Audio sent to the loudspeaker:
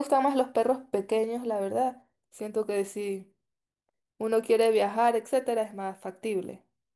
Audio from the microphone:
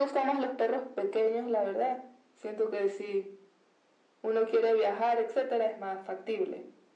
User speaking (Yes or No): No